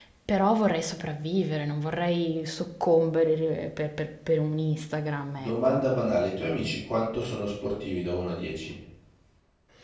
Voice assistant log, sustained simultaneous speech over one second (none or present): none